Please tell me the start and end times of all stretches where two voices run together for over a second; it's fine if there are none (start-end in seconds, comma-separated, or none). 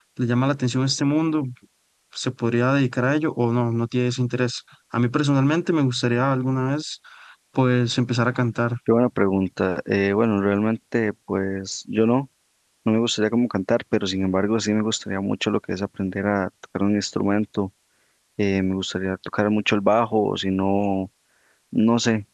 none